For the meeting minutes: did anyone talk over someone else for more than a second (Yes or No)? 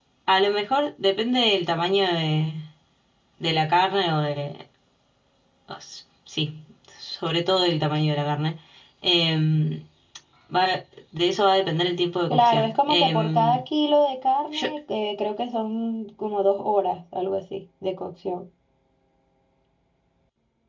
Yes